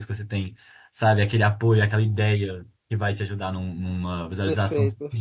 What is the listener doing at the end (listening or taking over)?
taking over